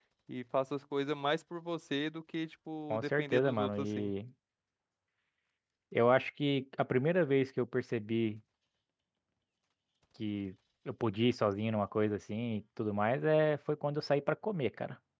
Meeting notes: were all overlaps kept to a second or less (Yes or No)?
No